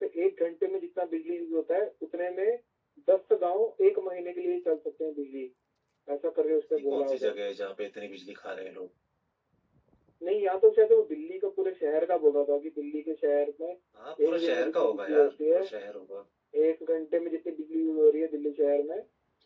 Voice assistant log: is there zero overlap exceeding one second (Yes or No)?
No